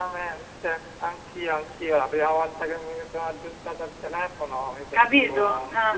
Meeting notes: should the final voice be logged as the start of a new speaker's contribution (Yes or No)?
No